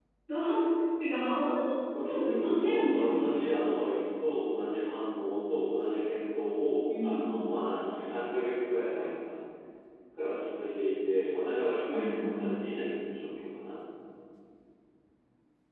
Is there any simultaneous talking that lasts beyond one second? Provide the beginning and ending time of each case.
2.1-3.6

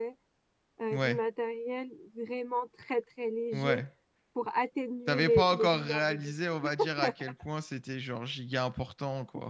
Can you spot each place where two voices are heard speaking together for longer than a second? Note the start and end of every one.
5.1-6.3

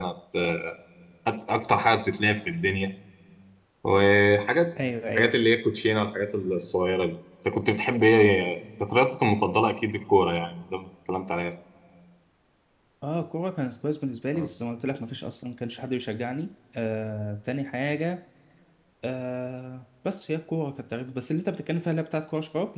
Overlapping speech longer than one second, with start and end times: none

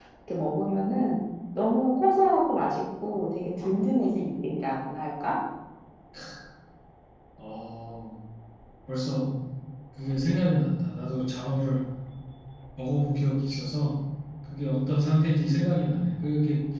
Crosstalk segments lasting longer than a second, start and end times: none

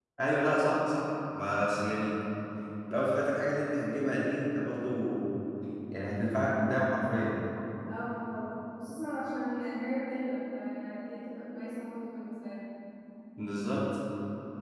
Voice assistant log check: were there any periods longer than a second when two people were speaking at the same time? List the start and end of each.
none

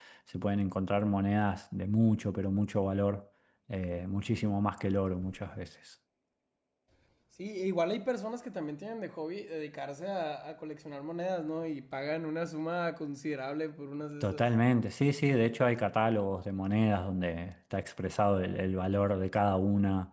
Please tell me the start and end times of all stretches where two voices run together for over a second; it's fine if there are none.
none

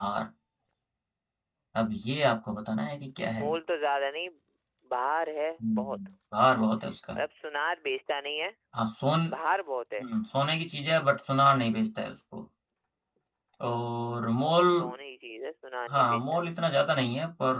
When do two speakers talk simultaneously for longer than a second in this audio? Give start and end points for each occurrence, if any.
none

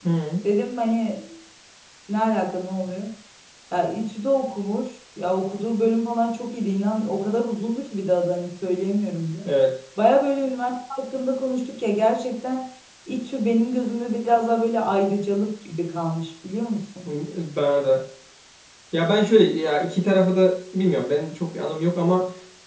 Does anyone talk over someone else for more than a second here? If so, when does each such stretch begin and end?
none

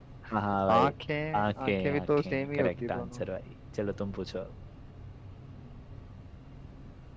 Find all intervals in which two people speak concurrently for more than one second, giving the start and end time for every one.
1.4-3.2

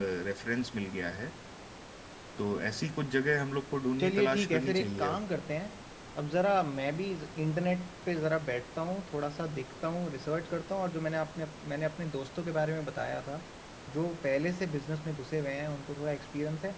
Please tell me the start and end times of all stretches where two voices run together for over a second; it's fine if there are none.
4.0-5.2

